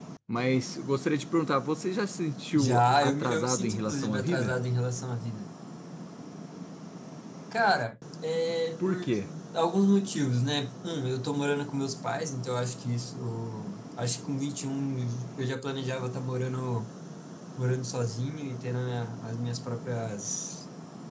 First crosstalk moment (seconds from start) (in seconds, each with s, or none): 2.6 s